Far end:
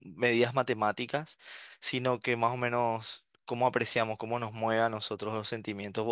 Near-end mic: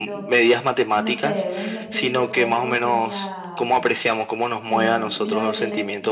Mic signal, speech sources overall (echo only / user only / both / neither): both